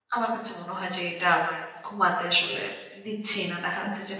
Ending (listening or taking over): listening